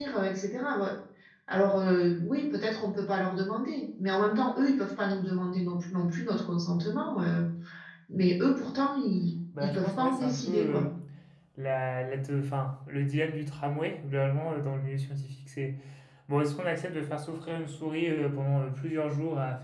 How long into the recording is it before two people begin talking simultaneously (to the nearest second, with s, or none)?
10 s